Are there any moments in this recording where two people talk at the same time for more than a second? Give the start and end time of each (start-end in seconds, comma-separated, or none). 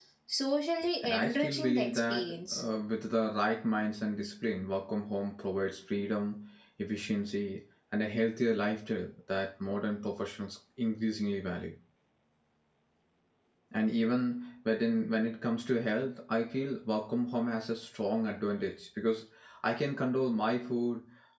1.0-2.6